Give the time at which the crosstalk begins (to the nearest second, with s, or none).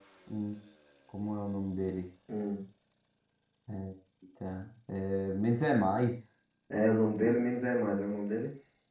none